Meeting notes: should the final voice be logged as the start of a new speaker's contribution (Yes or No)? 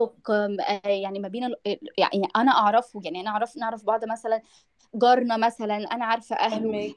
No